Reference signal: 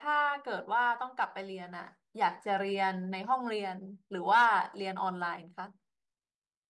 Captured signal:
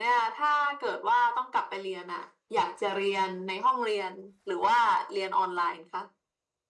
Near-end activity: none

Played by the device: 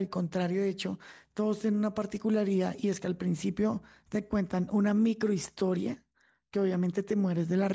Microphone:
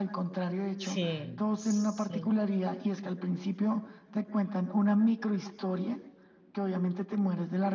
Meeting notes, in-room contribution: present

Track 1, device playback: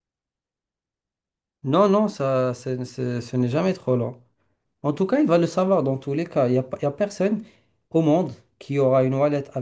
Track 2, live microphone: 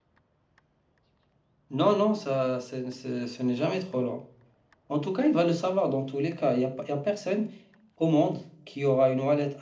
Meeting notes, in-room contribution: none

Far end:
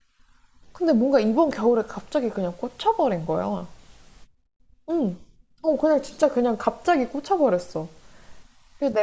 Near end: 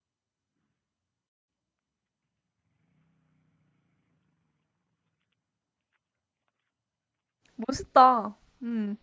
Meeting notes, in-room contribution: present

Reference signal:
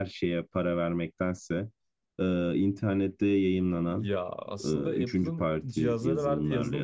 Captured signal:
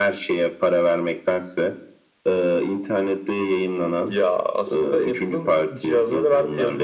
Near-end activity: none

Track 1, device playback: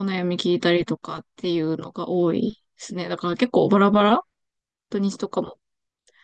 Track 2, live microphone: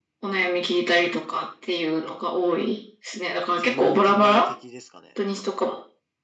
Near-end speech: present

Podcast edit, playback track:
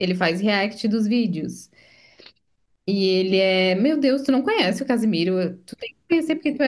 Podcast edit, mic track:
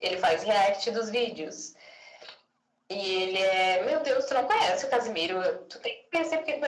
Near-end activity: none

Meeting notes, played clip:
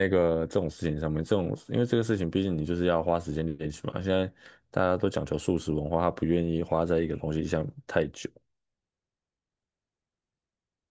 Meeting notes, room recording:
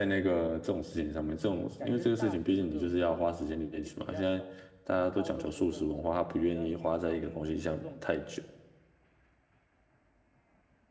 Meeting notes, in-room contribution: present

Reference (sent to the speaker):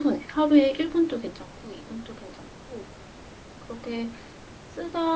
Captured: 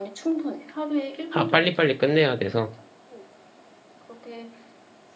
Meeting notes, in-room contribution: present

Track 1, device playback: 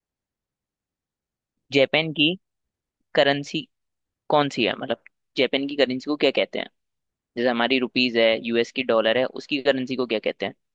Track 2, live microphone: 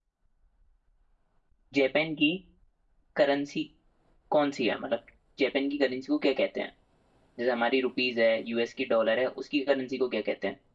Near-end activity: none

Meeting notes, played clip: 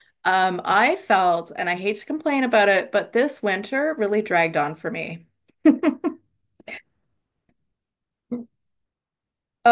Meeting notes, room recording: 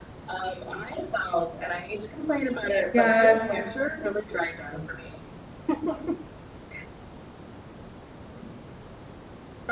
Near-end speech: present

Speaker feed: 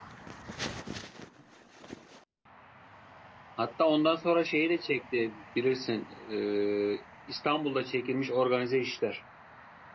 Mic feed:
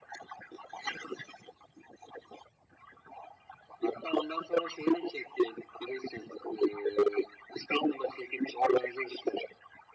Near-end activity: none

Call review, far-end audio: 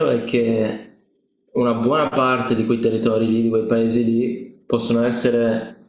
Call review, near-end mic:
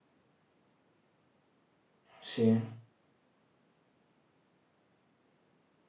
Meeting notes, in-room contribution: present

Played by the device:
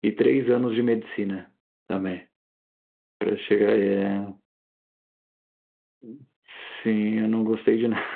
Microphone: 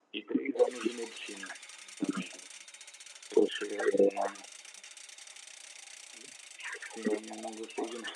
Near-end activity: none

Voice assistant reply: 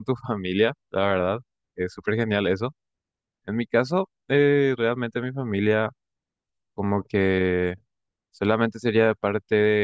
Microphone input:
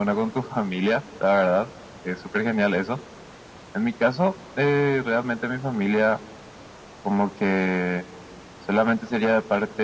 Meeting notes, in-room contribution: none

